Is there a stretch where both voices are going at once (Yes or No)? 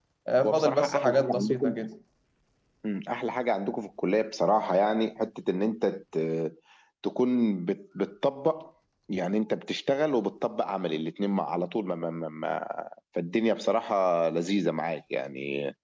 Yes